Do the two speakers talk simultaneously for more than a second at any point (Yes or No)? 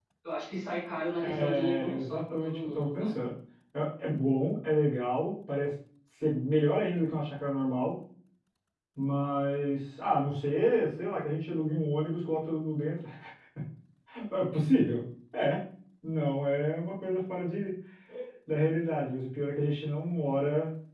Yes